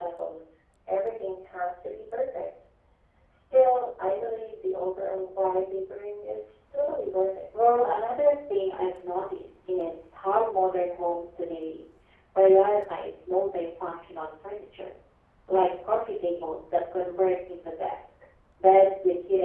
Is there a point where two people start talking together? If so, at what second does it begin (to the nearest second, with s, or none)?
none